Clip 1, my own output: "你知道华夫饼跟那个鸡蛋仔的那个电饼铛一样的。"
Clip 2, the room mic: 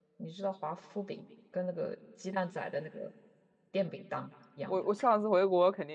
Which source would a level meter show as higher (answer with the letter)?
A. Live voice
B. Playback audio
A